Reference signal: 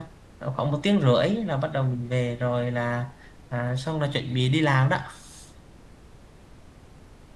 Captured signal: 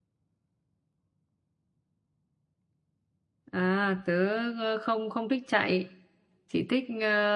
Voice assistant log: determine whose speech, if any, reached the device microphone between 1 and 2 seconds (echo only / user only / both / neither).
neither